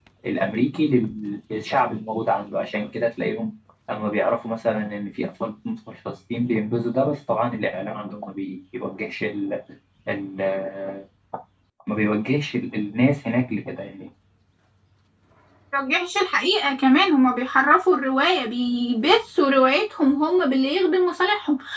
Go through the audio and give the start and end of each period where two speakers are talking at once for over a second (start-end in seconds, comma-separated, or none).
none